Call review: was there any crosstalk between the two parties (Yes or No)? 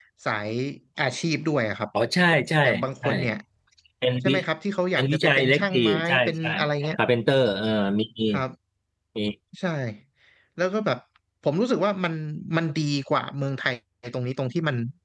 Yes